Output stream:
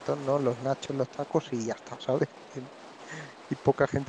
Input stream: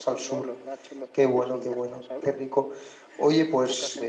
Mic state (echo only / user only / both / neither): both